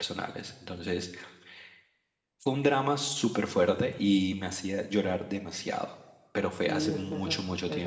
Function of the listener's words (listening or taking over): taking over